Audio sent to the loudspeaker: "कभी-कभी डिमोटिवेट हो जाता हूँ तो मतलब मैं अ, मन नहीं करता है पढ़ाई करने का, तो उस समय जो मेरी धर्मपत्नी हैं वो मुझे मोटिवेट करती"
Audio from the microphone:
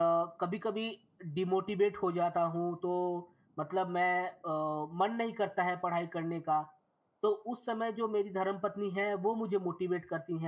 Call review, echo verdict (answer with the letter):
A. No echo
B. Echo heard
B